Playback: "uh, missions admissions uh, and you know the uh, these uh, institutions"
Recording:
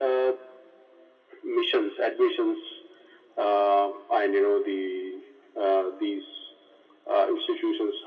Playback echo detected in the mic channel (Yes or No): Yes